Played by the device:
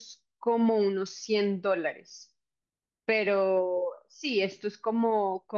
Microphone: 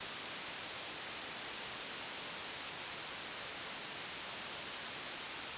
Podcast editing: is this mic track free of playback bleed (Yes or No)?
Yes